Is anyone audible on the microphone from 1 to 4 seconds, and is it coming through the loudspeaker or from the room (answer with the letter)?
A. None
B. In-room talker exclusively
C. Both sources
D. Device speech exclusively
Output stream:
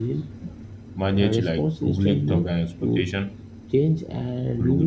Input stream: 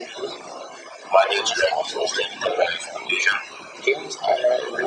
D